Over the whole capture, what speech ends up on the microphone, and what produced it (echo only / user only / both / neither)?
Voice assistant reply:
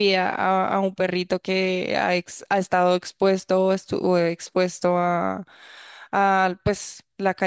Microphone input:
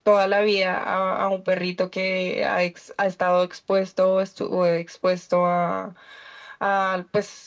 echo only